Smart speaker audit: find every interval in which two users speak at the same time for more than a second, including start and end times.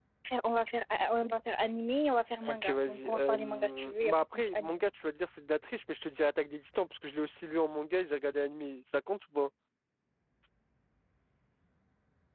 2.5-4.7

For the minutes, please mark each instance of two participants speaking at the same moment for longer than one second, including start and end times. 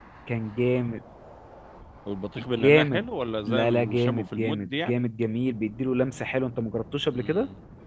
3.5-5.1

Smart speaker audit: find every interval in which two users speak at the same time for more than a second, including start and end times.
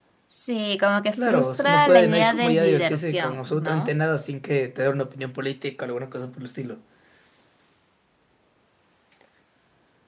1.1-3.9

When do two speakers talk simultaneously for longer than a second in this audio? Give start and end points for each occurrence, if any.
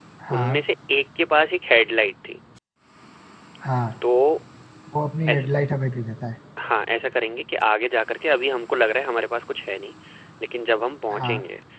none

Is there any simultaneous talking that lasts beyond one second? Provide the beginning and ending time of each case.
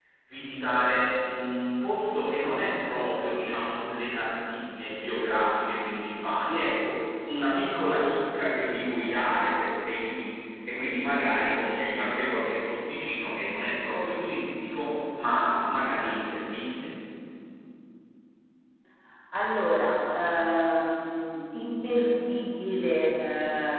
none

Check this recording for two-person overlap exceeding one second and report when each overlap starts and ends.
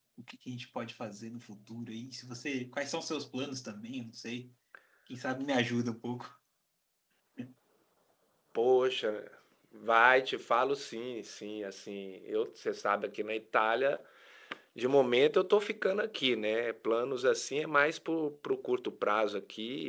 none

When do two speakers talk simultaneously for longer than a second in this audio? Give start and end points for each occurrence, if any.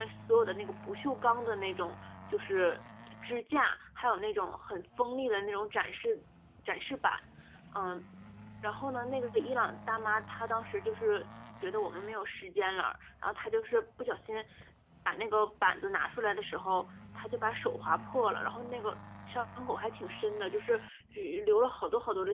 none

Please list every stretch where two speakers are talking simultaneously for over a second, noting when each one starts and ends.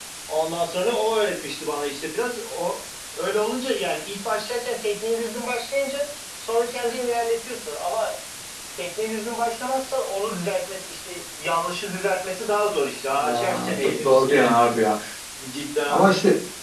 13.1-14.7

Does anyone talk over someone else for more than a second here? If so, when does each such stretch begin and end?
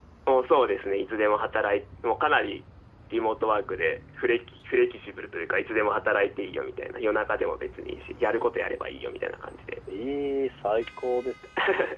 none

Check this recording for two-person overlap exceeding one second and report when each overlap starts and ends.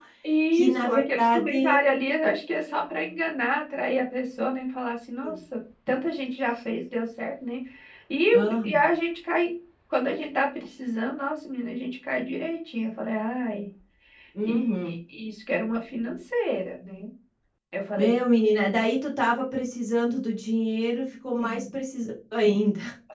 0.5-1.9

